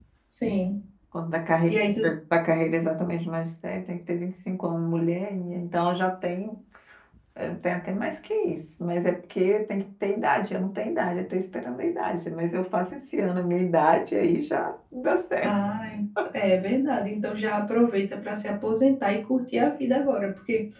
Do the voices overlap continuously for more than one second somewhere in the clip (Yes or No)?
No